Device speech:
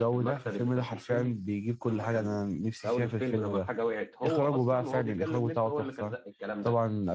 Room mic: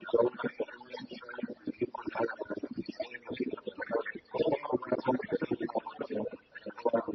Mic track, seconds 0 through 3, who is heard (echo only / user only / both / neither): echo only